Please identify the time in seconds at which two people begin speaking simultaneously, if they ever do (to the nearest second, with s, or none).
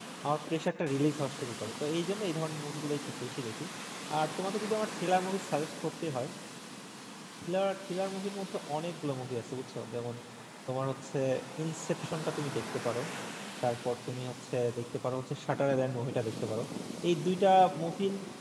none